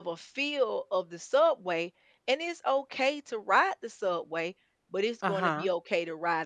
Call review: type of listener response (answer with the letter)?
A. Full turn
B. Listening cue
B